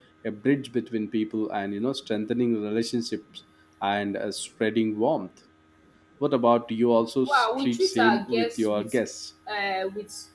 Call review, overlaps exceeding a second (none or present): present